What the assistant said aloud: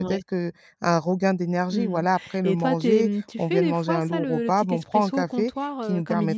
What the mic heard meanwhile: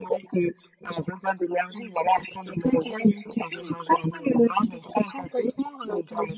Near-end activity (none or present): none